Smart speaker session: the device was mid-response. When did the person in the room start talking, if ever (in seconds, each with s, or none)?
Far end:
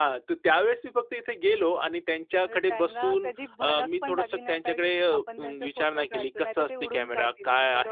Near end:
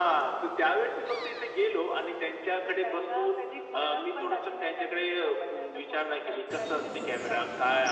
none